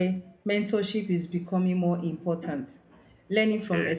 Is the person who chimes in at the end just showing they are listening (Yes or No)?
Yes